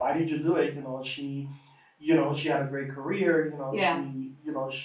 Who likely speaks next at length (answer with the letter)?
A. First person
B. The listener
A